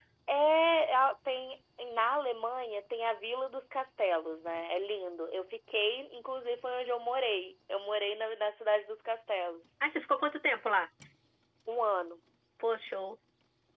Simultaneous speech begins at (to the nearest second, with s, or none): none